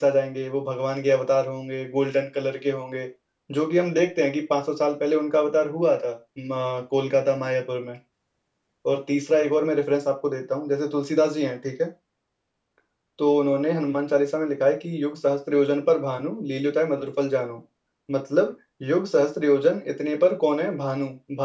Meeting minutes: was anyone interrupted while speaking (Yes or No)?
No